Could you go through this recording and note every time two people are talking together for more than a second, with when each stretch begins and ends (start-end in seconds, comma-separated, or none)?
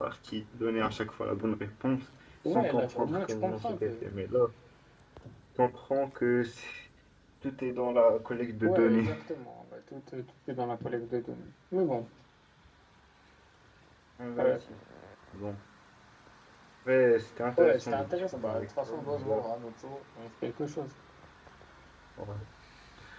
2.5-4.0, 17.6-19.4